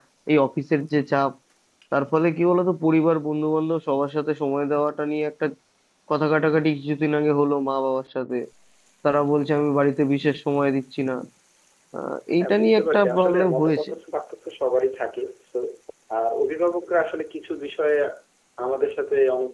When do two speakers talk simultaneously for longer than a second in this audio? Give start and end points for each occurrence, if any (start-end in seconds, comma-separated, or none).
12.4-13.9